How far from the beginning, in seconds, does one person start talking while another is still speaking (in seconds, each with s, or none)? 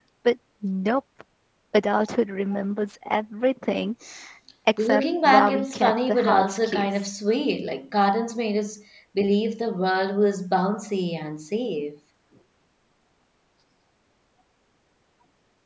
4.8 s